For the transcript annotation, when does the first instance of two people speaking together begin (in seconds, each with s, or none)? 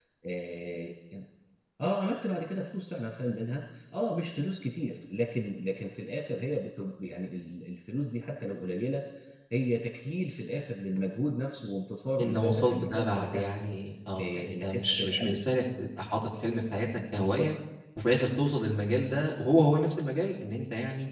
12.2 s